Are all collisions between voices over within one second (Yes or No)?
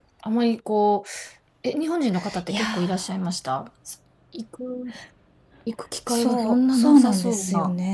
No